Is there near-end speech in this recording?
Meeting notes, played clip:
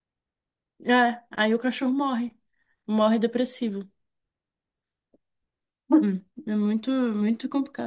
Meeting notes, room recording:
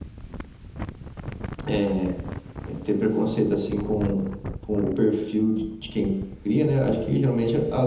Yes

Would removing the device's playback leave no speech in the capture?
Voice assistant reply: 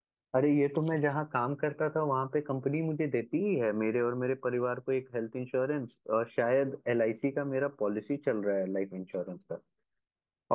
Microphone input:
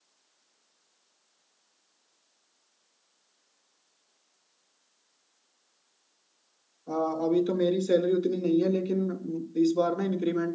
No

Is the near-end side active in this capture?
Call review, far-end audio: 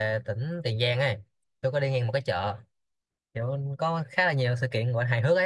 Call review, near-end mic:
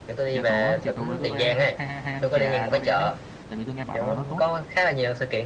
Yes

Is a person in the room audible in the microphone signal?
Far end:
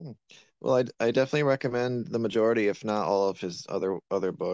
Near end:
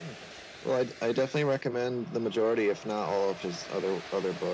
No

